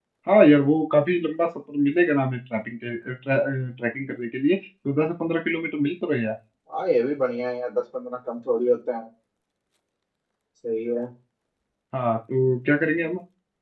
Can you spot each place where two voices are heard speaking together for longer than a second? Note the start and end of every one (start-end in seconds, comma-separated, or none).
none